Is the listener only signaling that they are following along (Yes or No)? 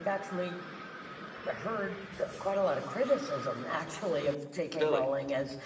Yes